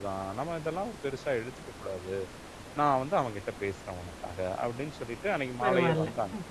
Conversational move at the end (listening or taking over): listening